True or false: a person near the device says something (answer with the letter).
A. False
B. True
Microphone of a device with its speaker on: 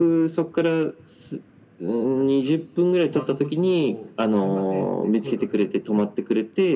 B